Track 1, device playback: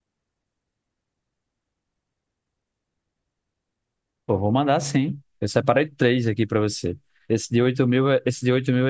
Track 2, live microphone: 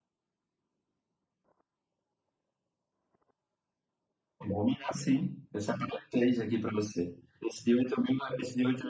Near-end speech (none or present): none